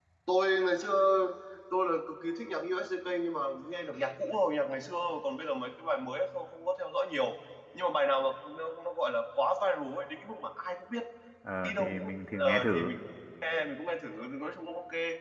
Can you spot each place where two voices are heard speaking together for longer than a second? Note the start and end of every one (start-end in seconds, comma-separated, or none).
11.6-12.9